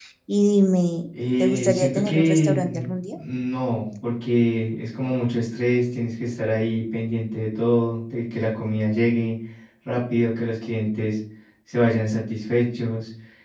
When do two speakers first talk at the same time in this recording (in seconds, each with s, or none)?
1.4 s